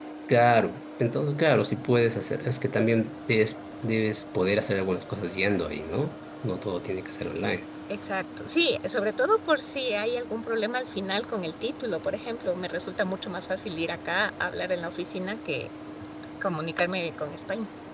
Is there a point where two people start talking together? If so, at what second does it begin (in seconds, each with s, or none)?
none